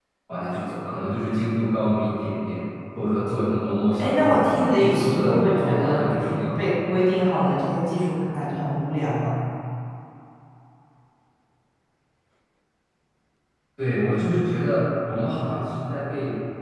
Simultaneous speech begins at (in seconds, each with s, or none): 4.0 s